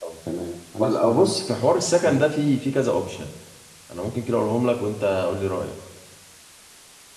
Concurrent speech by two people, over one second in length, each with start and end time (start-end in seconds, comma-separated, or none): 0.8-2.2